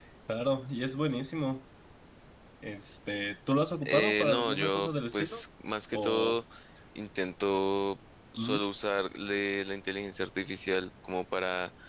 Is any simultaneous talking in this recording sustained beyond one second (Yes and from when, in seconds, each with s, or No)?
Yes, from 3.8 s